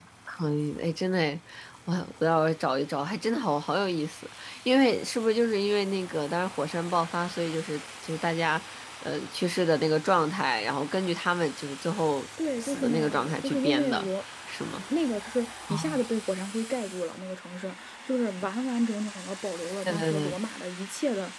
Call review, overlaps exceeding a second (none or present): present